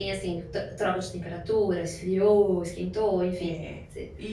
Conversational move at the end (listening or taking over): taking over